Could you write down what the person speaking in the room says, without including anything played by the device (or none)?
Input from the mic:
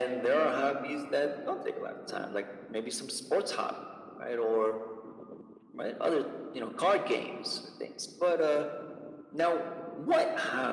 none